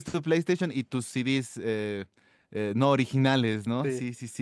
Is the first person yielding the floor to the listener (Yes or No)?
No